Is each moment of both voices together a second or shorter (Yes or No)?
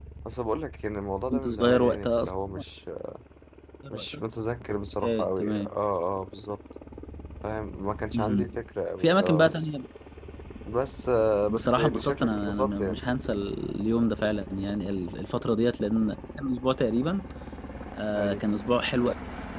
No